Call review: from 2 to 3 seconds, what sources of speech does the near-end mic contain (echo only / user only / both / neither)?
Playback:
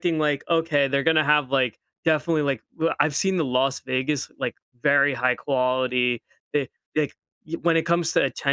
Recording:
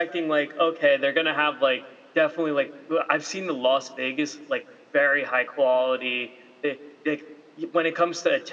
echo only